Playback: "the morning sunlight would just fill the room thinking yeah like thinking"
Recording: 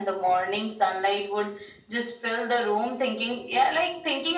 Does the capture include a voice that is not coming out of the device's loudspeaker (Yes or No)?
No